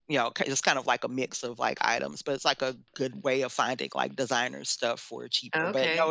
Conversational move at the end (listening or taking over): taking over